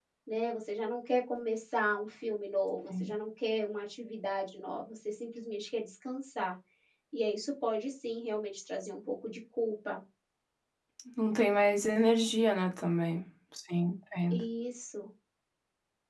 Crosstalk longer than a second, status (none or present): none